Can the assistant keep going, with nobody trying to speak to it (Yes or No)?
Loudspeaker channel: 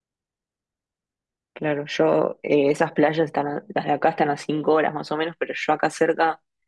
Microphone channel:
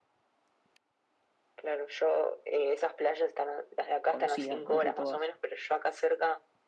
No